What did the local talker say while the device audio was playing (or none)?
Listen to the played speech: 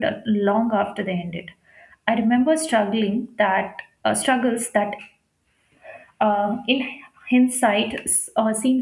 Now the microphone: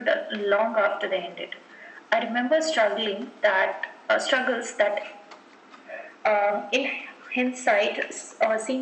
none